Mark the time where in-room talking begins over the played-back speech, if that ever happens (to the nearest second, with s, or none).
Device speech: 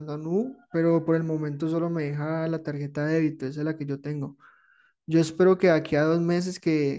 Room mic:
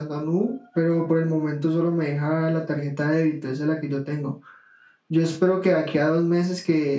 none